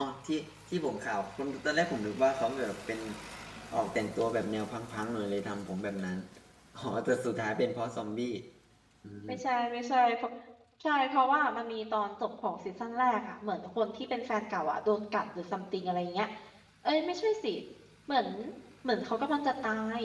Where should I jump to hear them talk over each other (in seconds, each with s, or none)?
none